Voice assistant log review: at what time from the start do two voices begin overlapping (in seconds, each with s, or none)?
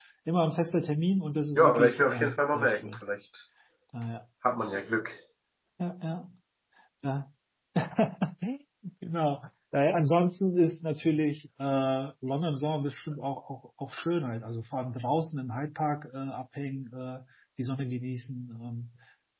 1.6 s